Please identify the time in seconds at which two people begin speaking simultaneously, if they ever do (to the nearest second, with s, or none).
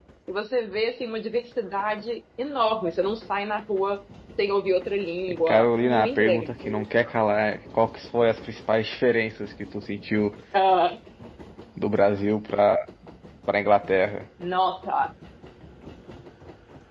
5 s